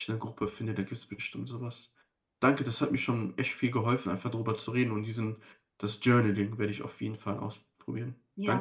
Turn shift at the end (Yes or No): Yes